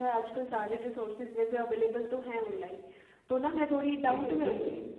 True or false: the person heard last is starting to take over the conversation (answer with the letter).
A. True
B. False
A